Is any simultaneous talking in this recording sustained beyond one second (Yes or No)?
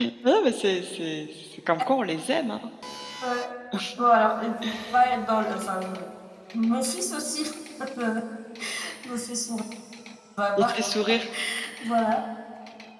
No